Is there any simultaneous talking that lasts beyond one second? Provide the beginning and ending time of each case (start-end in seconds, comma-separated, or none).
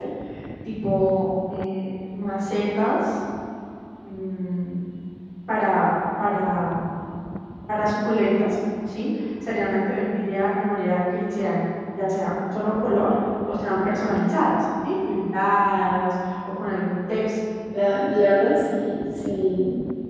none